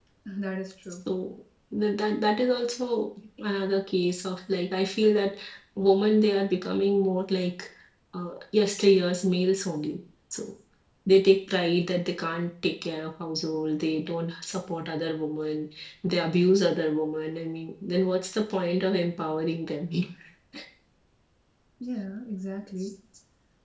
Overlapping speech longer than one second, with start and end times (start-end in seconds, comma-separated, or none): none